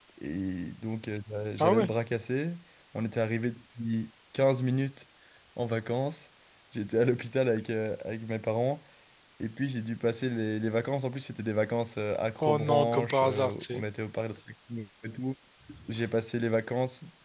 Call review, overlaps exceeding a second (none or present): present